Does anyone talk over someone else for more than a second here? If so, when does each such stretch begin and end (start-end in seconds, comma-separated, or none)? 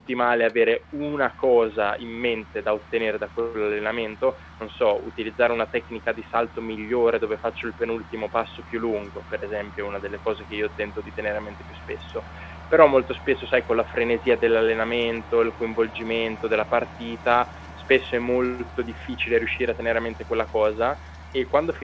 none